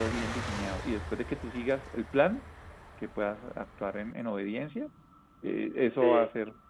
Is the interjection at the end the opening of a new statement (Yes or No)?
No